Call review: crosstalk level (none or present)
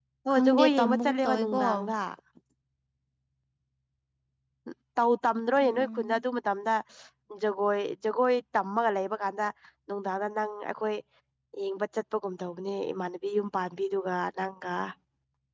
present